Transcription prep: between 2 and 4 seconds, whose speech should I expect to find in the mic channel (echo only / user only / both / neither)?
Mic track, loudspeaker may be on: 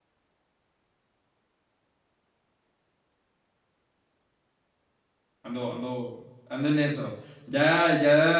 neither